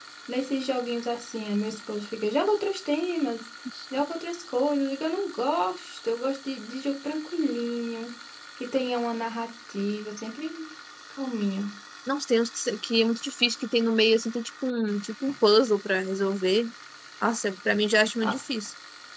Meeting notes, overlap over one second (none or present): none